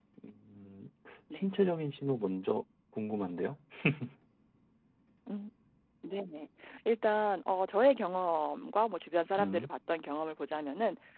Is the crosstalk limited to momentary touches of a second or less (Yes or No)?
Yes